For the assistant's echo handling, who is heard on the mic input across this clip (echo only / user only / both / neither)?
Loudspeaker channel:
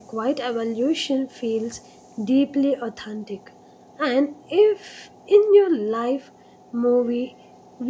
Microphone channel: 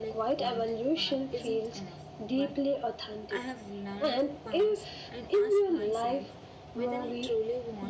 both